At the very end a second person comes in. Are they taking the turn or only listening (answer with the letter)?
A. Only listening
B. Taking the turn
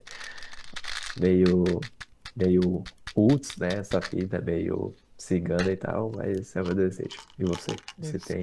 B